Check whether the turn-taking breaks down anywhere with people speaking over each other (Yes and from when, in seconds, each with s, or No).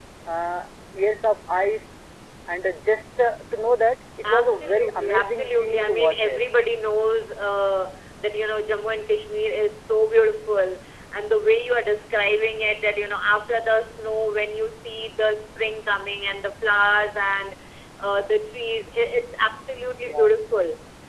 Yes, from 4.2 s